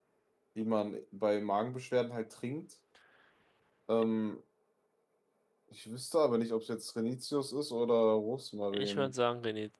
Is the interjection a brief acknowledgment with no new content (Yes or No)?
No